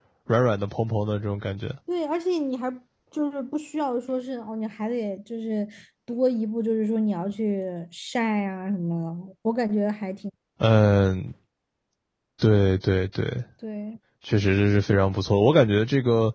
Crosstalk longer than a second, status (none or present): none